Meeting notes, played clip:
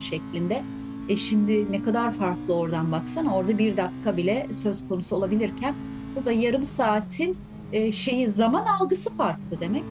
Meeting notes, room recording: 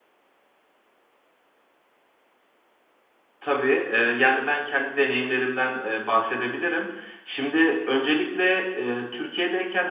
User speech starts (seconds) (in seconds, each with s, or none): 3.4 s